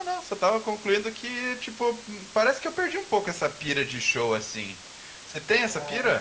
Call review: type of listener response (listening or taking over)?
taking over